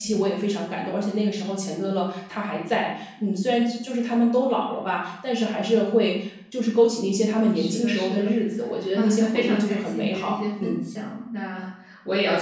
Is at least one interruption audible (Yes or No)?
Yes